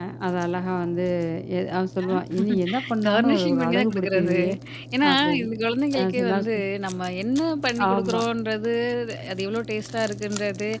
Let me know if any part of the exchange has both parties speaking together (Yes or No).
Yes